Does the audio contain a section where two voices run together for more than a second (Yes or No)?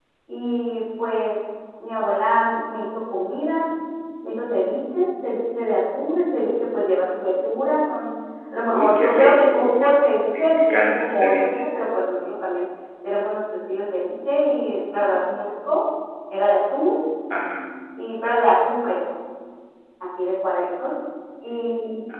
Yes